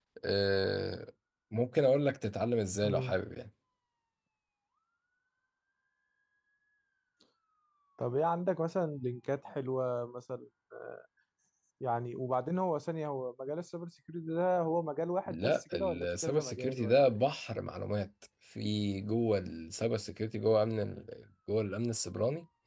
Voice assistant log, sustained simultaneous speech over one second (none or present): present